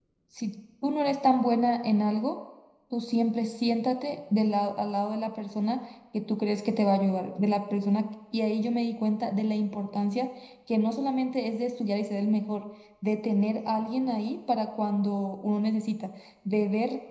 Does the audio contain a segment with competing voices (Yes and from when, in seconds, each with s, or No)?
No